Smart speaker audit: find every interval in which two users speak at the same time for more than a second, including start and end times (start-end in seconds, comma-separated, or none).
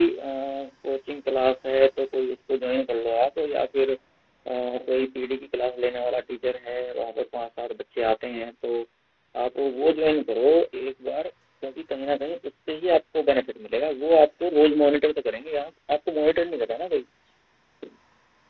none